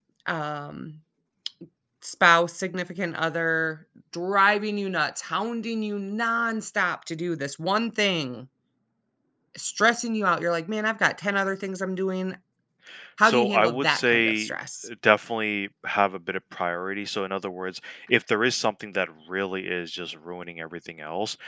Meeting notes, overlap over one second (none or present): present